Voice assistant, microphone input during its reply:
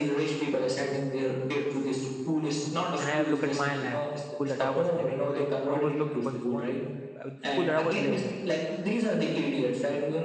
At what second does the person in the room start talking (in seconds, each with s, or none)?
3.0 s